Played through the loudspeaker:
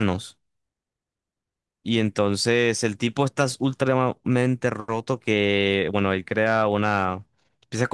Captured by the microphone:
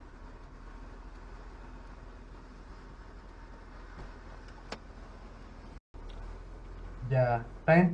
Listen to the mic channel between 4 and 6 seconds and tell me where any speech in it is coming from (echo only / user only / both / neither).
neither